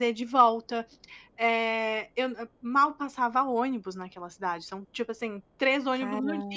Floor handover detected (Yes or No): No